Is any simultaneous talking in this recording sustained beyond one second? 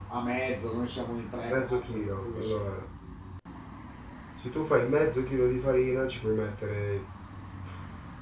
Yes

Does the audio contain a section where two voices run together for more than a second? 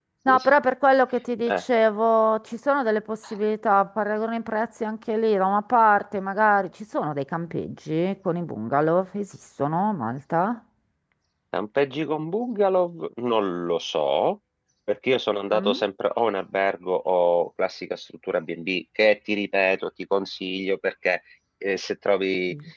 No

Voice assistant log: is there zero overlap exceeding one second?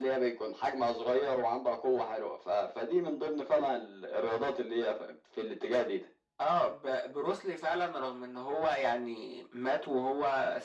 Yes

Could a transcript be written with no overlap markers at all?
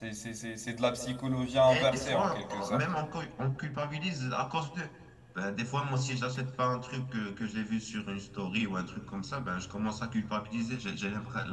No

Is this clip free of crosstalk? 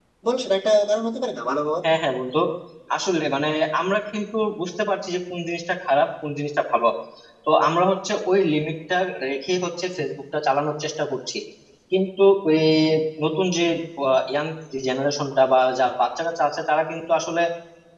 Yes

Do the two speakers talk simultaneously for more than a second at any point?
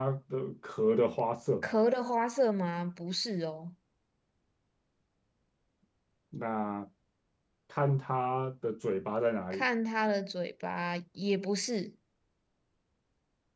No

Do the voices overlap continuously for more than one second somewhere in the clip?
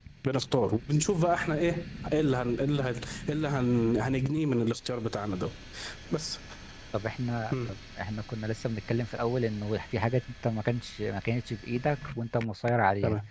No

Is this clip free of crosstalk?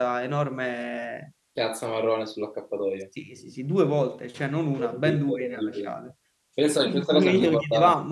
No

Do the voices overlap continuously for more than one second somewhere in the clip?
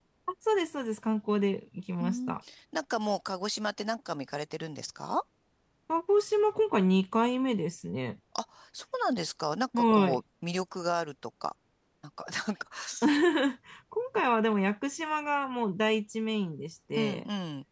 No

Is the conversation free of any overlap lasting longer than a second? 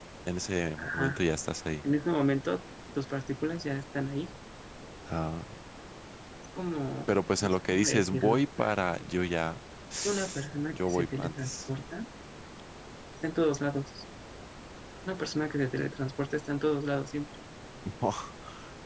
No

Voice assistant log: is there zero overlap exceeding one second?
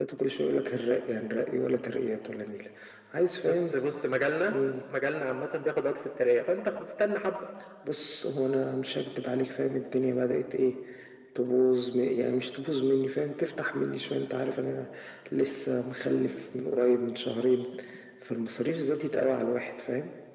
Yes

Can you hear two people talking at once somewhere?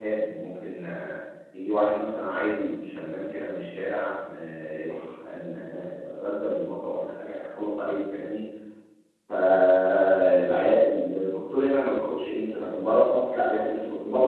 No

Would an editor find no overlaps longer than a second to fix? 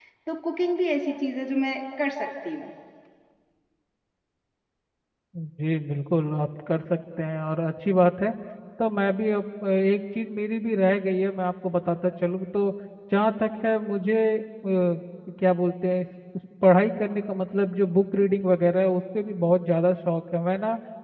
Yes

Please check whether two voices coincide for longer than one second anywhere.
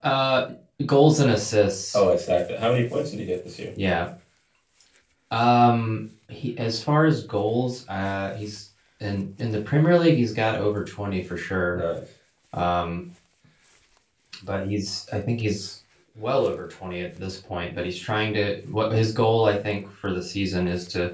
No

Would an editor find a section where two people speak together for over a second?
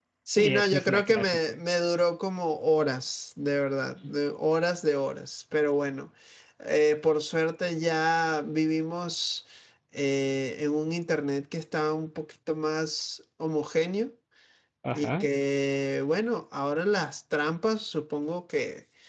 Yes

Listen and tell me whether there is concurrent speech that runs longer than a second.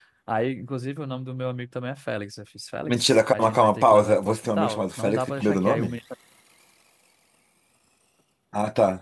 Yes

